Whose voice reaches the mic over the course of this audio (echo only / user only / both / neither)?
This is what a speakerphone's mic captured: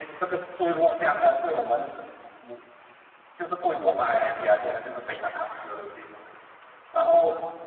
echo only